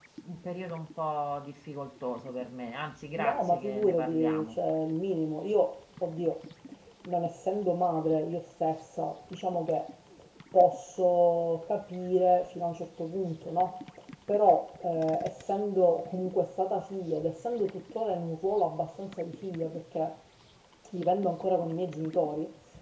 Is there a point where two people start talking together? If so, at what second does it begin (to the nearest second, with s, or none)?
3 s